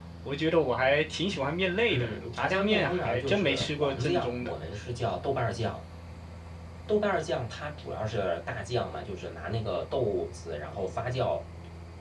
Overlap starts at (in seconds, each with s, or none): 1.9 s